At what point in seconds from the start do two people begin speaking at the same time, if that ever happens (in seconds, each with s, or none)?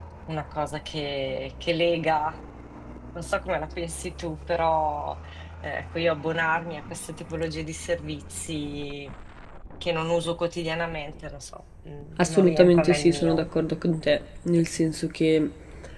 12.2 s